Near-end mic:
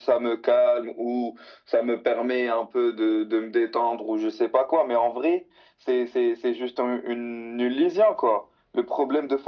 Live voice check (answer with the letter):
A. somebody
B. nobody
B